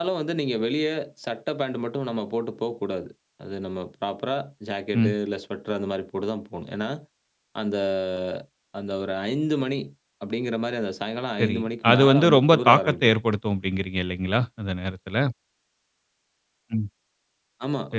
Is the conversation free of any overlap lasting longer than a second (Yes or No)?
No